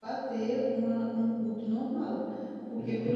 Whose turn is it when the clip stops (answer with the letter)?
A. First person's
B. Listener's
A